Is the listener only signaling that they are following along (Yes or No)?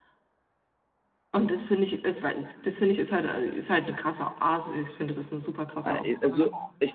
No